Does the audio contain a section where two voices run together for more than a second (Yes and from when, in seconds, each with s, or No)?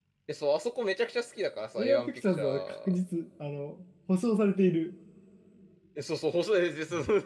Yes, from 1.8 s